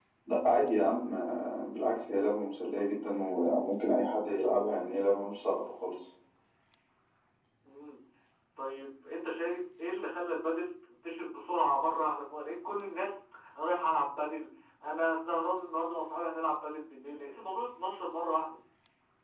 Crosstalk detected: No

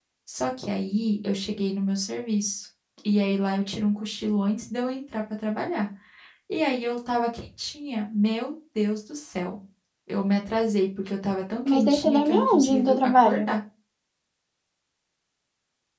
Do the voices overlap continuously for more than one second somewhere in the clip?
Yes, from 11.6 s

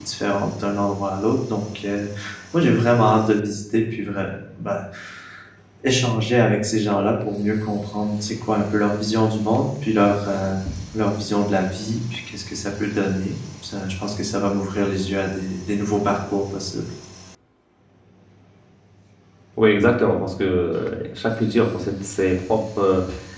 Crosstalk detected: No

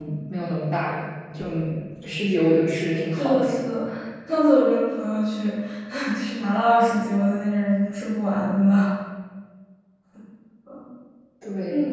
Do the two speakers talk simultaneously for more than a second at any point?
No

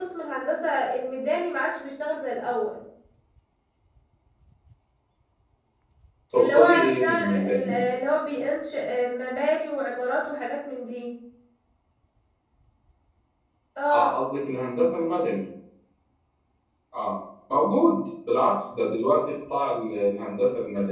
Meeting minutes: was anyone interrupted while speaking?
Yes, from 6.3 s

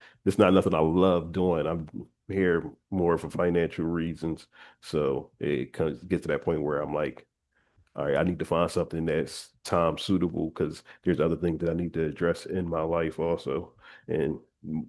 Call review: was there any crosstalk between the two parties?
No

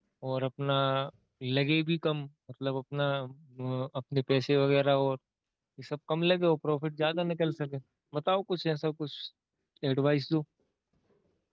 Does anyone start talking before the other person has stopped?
No

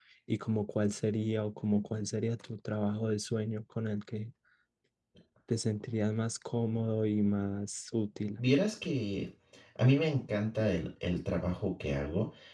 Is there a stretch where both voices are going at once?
No

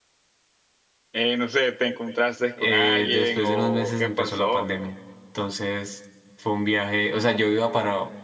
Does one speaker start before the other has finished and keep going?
Yes, from 2.6 s

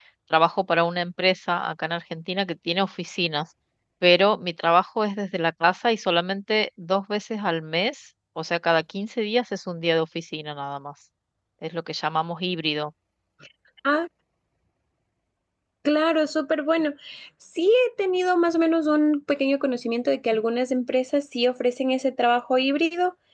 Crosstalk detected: No

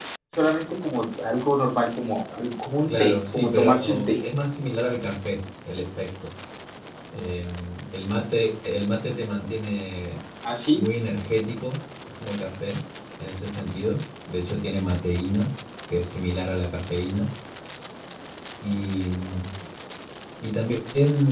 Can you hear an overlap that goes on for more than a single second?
Yes, from 2.9 s

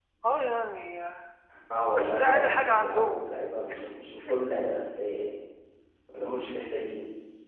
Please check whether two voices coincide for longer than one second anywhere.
Yes, from 2.0 s

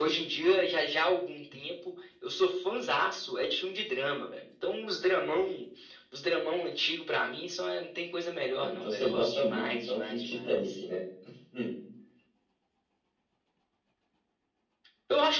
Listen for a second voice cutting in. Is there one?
Yes, from 8.6 s

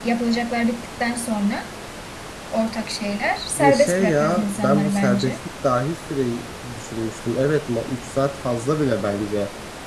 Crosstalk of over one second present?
Yes, from 3.6 s

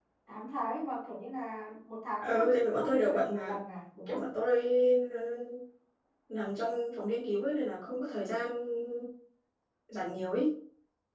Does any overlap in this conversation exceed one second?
Yes, from 2.2 s

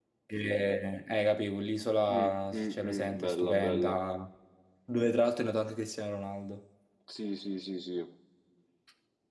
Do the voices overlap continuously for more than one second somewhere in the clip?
Yes, from 2.1 s

